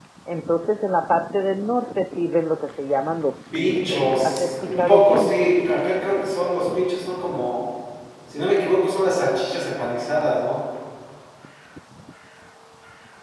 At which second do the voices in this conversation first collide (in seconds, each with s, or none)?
3.5 s